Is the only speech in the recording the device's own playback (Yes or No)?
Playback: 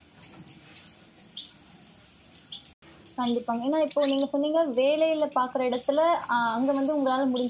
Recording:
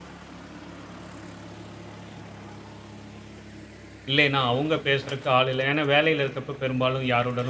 No